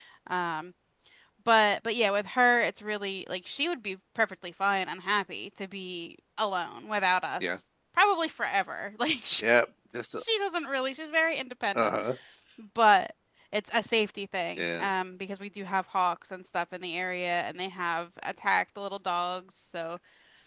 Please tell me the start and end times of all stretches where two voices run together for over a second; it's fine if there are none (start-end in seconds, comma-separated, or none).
none